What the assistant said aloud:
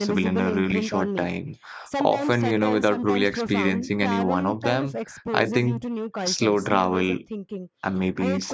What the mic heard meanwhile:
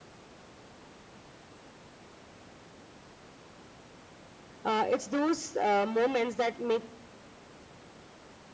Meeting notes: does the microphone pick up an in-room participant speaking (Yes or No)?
Yes